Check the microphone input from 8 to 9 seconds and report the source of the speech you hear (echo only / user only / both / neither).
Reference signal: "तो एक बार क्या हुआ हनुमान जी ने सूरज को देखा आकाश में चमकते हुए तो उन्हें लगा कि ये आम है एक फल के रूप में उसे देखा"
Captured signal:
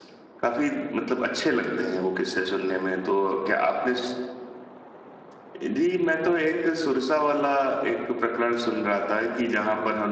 user only